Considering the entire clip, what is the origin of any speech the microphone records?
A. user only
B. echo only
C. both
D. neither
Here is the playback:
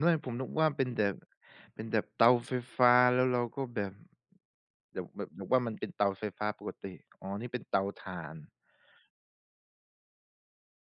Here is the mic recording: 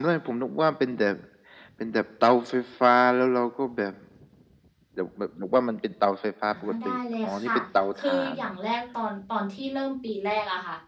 C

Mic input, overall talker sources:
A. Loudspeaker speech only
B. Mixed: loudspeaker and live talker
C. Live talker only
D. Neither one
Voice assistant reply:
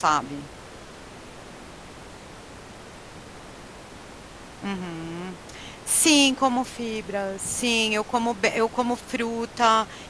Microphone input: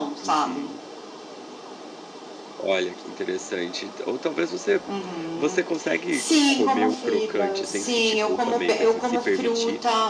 B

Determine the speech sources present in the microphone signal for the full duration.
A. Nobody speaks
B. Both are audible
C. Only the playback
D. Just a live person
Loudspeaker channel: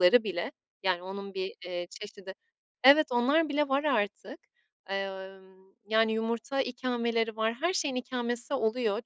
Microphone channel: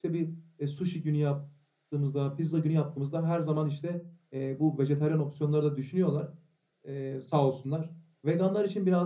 D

